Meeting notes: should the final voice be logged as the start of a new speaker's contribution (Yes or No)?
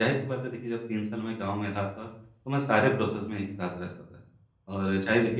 No